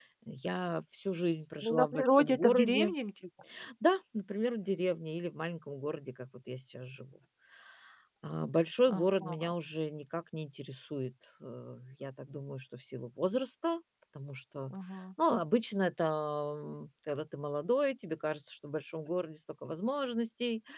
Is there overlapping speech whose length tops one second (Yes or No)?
Yes